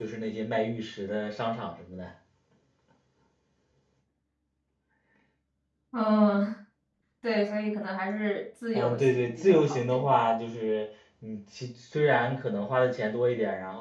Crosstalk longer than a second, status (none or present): present